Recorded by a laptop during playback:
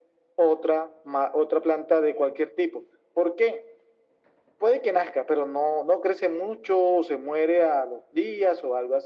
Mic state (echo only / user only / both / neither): echo only